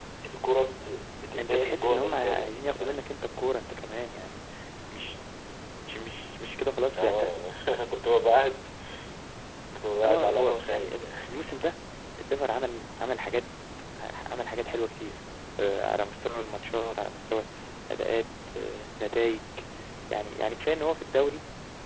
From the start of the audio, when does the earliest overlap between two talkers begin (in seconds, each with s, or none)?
1.4 s